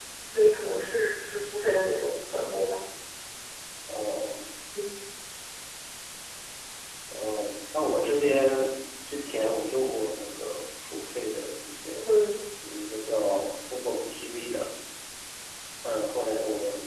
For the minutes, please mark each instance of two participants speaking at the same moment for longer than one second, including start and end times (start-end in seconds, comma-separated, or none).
none